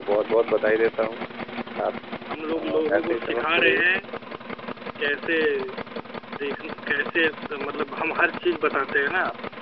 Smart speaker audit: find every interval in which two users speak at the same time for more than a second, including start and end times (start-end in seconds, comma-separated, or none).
2.5-3.8